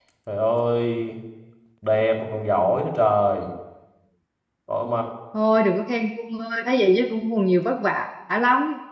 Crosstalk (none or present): none